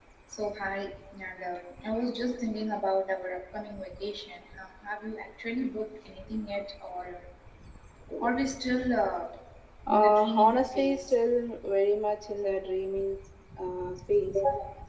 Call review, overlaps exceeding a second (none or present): present